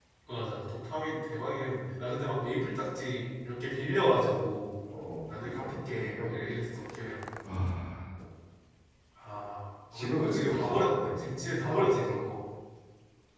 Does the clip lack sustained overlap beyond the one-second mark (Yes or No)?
No